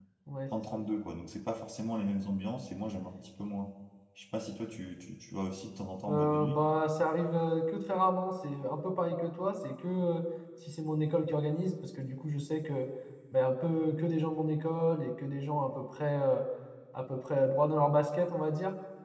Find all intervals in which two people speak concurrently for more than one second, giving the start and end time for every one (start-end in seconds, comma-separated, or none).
none